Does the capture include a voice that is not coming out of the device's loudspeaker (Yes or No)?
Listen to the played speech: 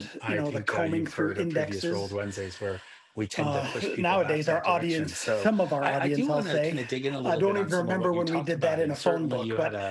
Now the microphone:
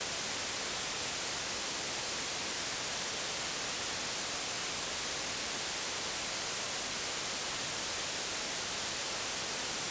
No